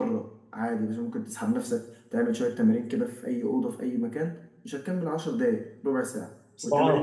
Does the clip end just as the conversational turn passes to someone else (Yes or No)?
Yes